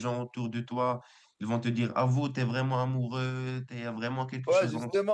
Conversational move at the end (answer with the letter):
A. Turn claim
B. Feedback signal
A